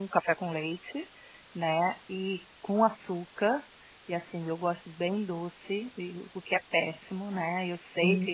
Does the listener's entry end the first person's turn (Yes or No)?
No